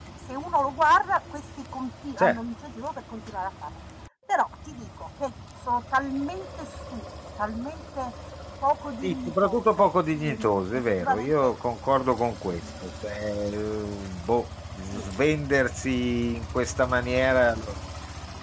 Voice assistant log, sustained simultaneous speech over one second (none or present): present